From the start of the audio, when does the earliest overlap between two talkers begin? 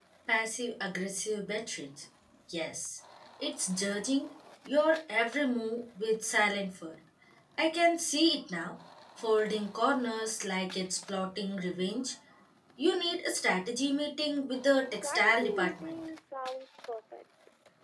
14.6 s

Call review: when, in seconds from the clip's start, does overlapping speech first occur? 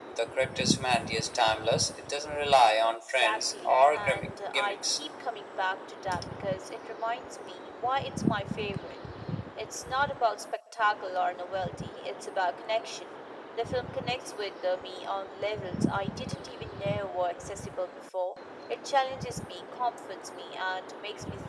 2.8 s

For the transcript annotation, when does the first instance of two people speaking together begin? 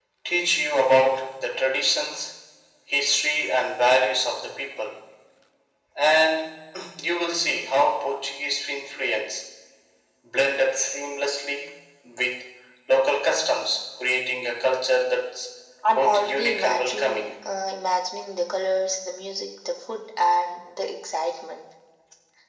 15.9 s

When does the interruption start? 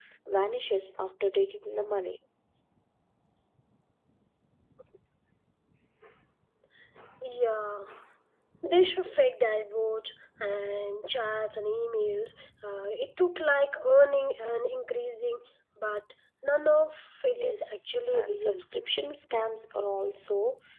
17.3 s

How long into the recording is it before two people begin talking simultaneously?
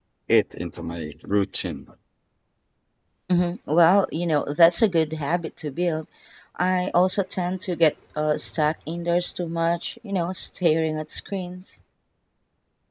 none

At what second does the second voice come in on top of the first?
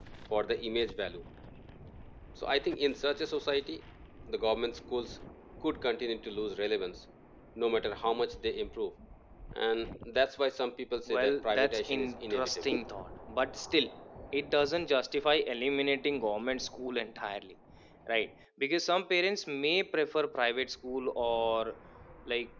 11.1 s

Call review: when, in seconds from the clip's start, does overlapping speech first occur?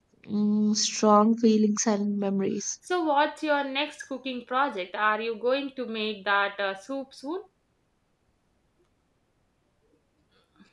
none

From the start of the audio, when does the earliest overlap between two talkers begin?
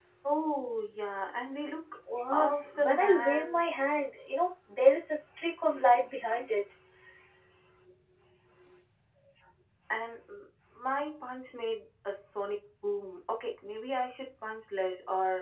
2.3 s

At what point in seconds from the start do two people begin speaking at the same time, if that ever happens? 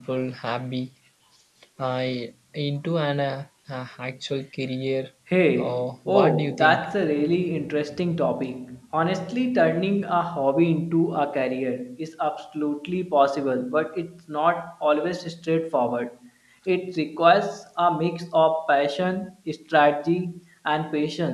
5.6 s

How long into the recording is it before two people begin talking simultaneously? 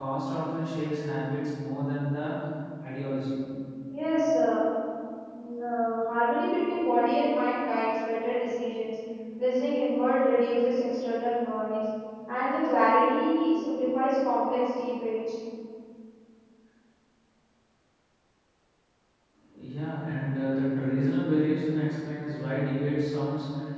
none

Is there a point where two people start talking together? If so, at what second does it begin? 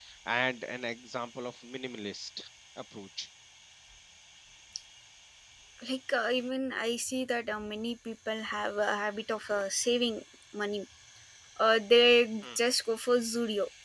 none

